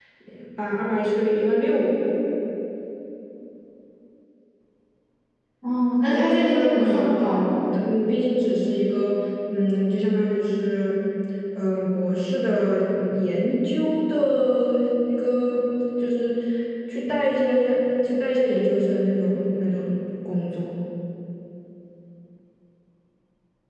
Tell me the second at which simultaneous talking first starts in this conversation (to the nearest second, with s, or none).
6 s